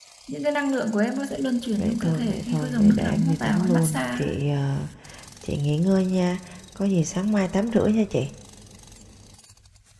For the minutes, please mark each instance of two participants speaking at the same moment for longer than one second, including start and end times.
1.7-4.3

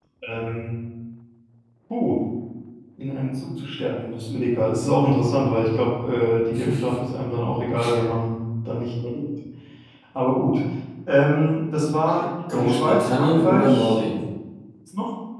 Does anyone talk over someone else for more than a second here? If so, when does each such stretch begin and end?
12.6-14.0

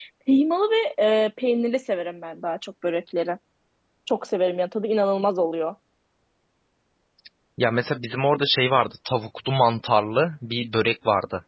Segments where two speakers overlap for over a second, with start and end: none

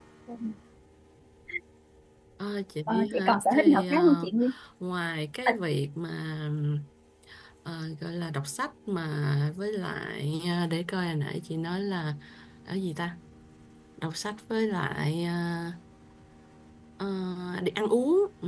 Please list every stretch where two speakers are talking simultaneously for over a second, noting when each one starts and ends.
2.9-4.3

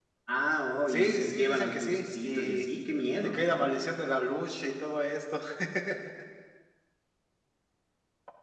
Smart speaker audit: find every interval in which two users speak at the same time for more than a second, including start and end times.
0.9-2.6

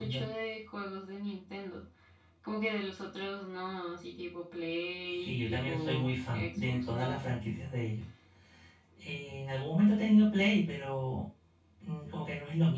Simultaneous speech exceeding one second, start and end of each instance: 5.2-7.2

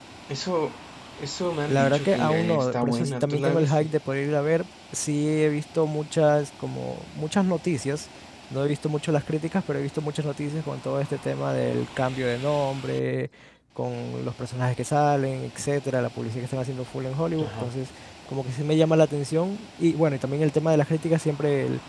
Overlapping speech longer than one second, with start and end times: 1.7-3.9

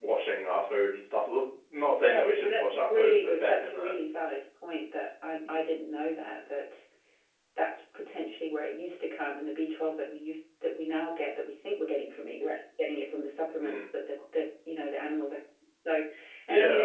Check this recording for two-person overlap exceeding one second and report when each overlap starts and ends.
2.0-3.9

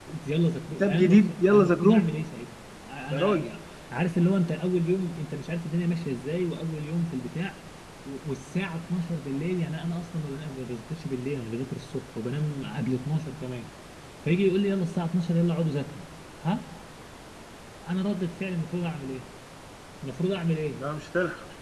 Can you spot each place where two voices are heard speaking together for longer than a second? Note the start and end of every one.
0.8-2.1

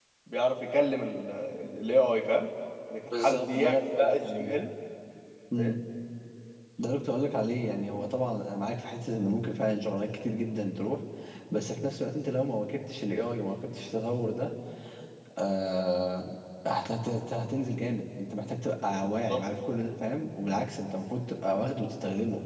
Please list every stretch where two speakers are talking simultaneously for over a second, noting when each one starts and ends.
3.1-4.6

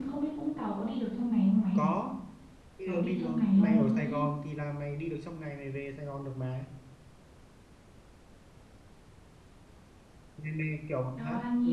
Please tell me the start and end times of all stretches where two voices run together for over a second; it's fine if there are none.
2.9-4.2

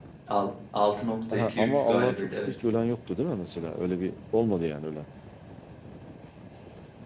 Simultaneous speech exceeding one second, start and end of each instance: 1.3-2.5

